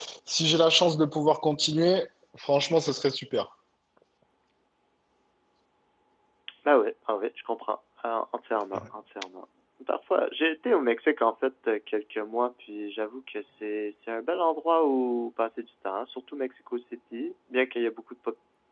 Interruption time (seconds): none

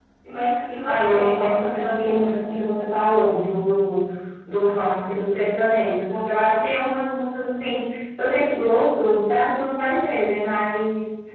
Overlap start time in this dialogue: 0.8 s

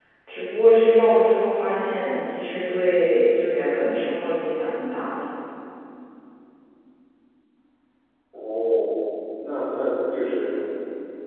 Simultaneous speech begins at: none

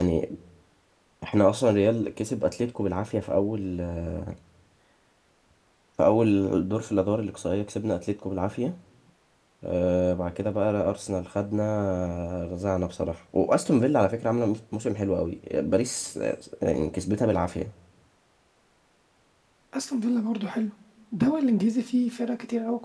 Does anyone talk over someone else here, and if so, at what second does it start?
none

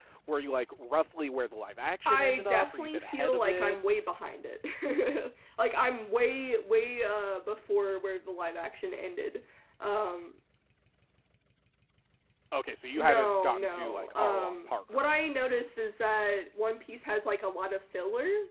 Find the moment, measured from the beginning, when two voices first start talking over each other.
2.1 s

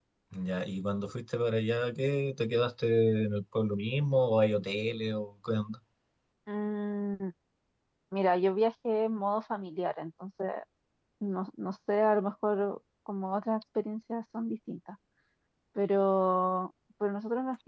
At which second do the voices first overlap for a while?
none

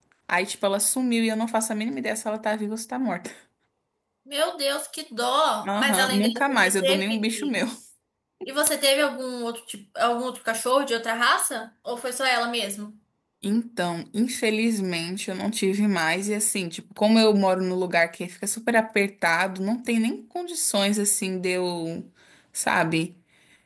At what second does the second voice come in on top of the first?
5.6 s

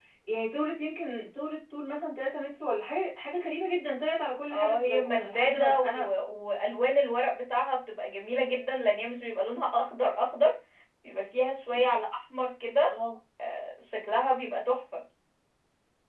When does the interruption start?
4.5 s

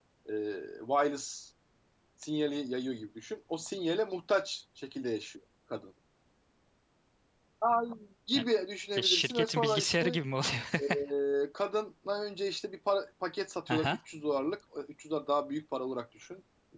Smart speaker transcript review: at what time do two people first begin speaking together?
9.0 s

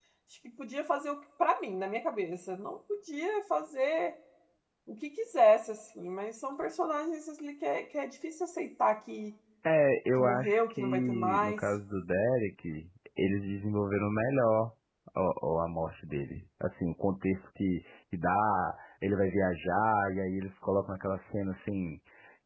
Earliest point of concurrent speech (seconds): 10.2 s

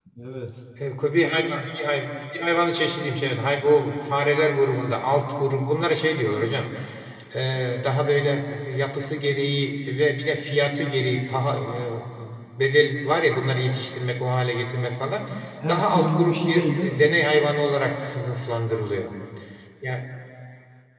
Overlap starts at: 15.7 s

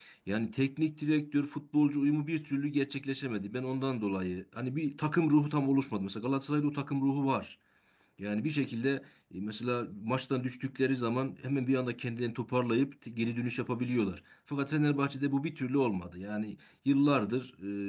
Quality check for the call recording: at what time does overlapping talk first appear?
none

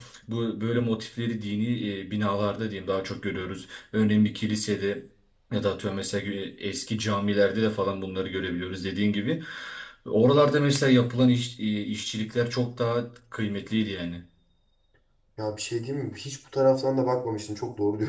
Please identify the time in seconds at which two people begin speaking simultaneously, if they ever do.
none

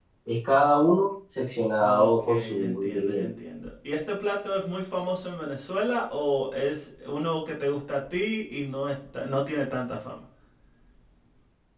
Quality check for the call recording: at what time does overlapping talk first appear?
1.8 s

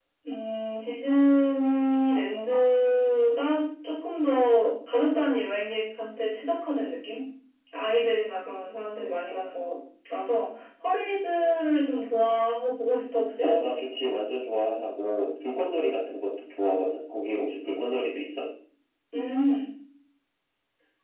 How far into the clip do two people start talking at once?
none

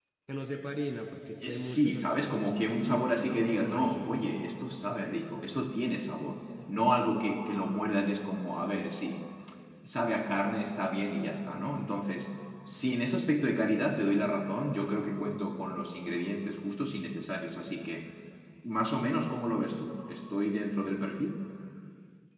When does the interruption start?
1.4 s

